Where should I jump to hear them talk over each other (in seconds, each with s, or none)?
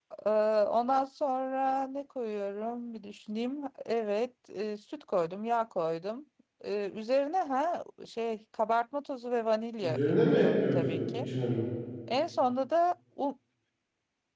9.8 s